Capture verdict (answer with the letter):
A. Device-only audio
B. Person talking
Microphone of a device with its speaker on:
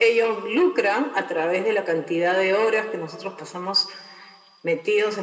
A